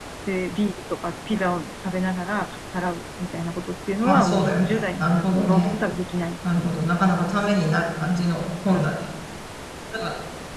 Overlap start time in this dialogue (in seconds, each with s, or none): 4.0 s